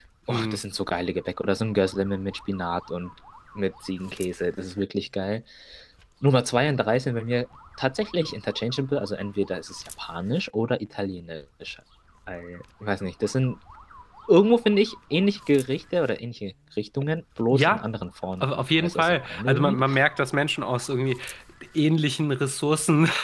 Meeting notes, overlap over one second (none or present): present